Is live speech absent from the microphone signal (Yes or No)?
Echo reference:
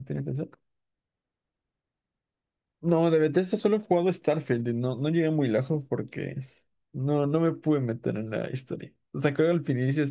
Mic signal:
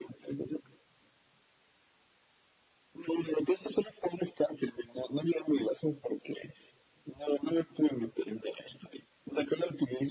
Yes